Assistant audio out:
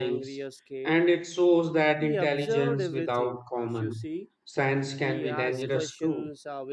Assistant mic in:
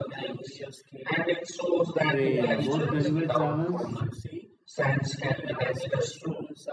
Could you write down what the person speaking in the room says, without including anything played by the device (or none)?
hey about gulliver travels